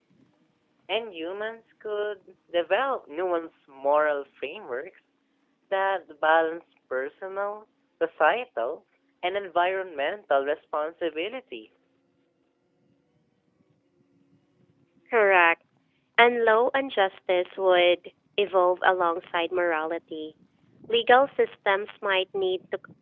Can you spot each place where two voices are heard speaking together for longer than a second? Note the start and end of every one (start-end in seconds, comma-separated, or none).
none